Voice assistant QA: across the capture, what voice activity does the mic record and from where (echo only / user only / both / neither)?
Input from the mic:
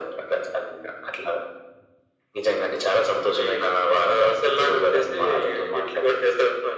echo only